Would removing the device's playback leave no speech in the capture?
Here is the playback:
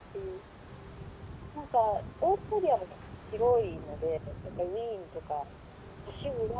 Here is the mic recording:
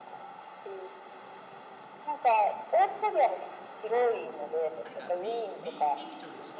No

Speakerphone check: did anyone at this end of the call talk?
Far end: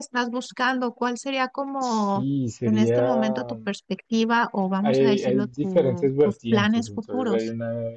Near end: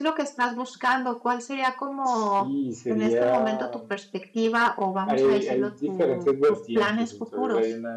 No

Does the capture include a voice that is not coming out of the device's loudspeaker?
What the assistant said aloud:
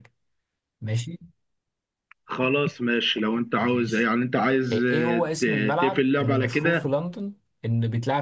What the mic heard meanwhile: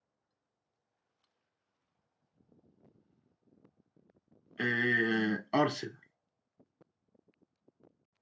Yes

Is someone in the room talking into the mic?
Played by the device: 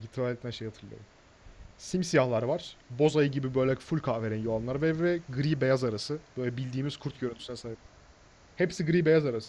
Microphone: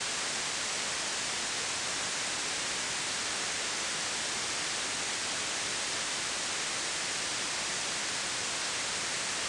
No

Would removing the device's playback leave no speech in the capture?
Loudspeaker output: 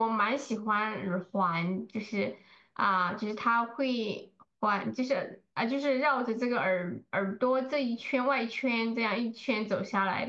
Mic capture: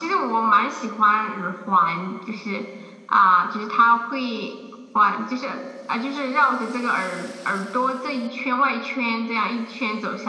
Yes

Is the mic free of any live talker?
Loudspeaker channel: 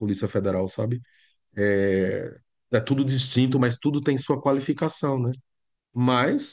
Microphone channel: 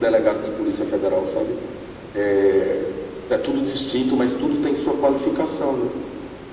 Yes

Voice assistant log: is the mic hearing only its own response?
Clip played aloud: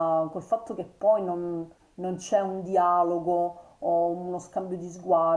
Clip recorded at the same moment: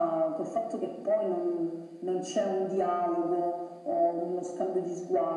Yes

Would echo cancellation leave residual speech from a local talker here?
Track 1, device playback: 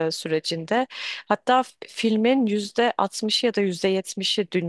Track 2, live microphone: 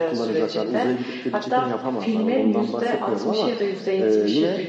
Yes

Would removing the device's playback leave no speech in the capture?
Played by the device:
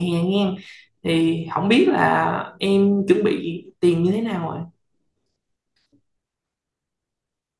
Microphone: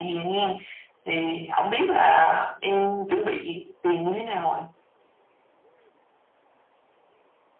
Yes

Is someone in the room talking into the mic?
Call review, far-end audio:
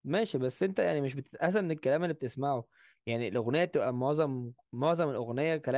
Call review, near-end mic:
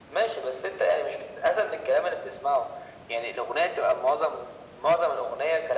No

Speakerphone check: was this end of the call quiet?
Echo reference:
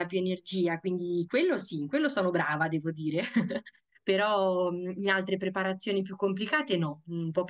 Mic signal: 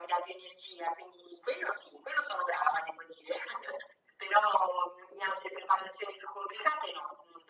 Yes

